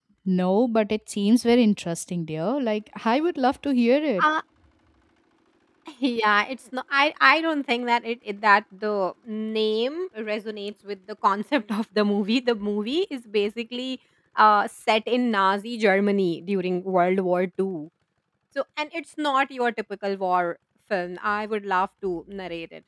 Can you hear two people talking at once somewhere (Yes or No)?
No